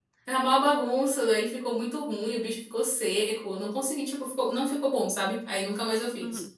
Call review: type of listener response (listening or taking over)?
taking over